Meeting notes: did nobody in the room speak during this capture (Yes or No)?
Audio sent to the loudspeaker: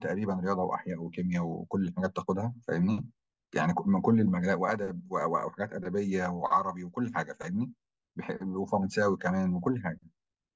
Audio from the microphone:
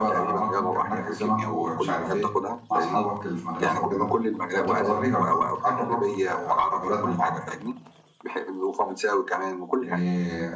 No